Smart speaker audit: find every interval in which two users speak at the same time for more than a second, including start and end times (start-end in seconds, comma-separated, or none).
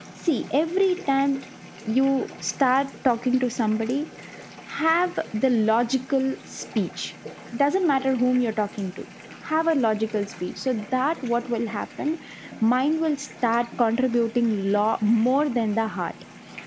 none